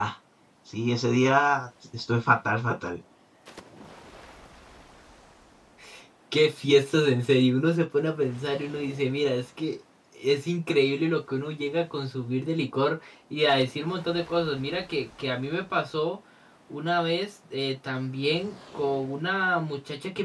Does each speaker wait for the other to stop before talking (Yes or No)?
Yes